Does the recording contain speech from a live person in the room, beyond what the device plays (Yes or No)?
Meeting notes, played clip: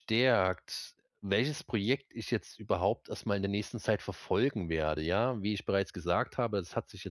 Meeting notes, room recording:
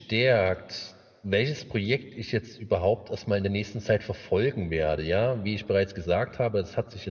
No